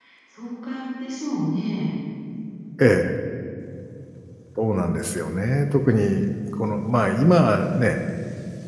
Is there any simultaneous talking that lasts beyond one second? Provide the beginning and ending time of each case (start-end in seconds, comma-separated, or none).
none